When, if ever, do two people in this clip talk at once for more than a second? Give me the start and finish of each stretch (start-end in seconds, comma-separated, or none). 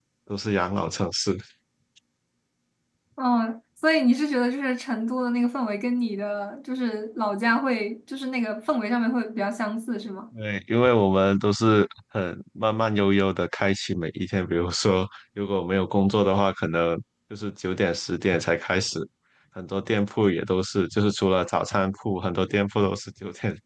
none